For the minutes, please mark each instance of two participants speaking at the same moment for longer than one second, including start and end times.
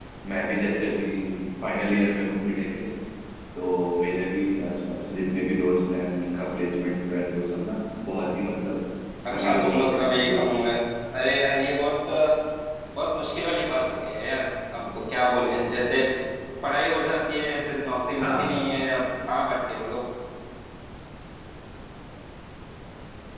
9.3-10.5

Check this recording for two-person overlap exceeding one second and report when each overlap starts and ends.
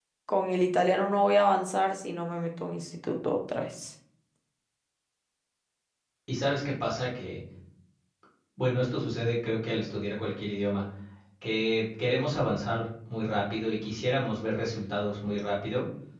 none

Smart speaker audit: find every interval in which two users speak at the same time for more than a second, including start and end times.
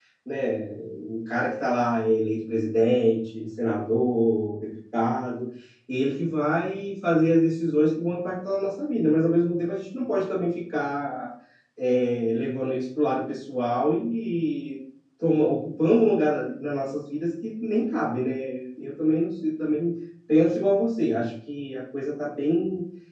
none

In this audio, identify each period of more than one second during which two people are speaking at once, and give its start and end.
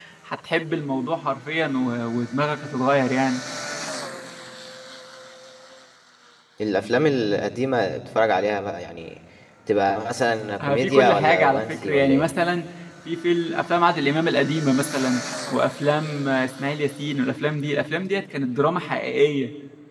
10.6-12.3

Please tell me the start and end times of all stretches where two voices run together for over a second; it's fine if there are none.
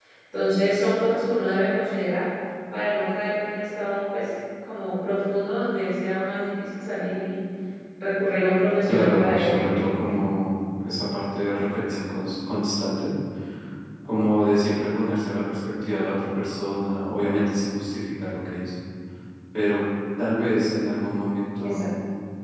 8.9-10.1

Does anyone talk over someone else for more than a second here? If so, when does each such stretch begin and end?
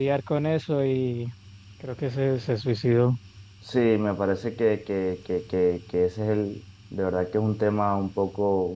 none

